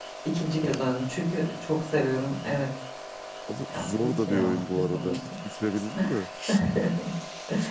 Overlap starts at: 3.7 s

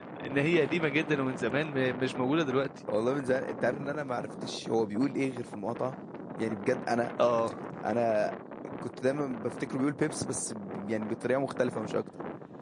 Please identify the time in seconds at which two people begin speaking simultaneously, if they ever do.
none

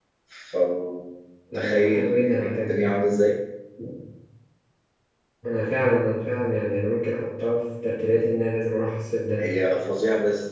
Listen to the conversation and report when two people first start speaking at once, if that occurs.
1.5 s

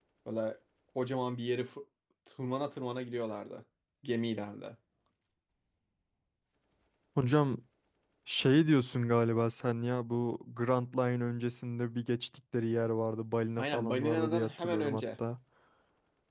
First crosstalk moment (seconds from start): 13.6 s

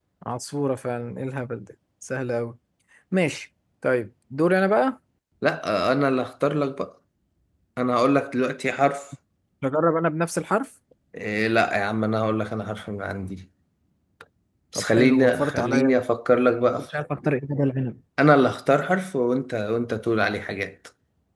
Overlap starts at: 14.8 s

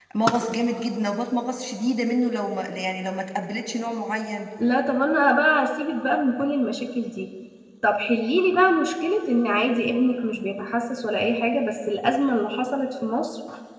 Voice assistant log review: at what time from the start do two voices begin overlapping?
none

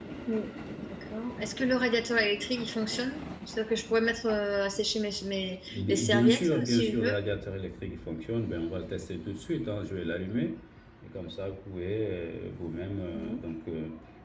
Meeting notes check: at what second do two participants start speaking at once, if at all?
5.7 s

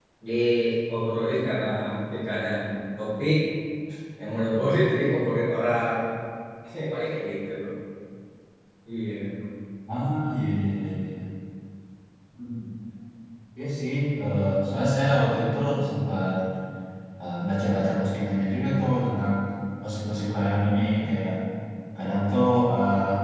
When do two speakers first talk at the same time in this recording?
none

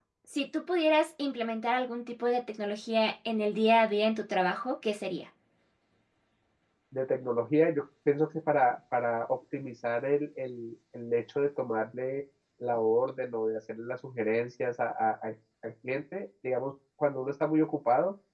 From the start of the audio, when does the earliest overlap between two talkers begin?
none

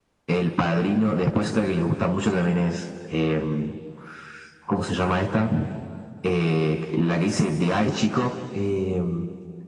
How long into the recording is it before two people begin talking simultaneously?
none

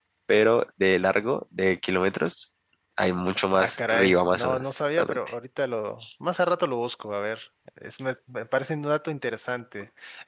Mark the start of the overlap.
3.5 s

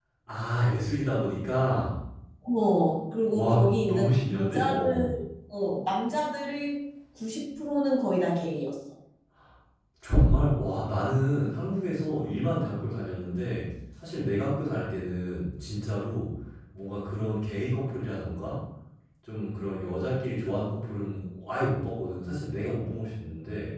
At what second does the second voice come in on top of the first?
3.3 s

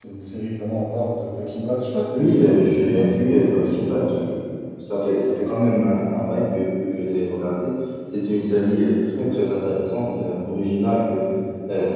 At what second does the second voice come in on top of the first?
2.2 s

